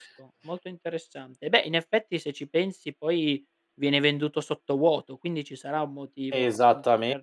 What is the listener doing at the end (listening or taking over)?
taking over